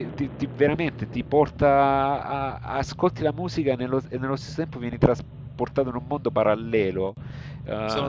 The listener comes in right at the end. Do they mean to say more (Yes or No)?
No